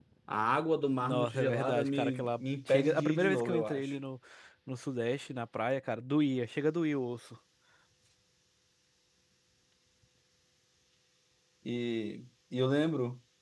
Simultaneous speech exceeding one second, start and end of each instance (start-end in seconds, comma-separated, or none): 1.0-3.9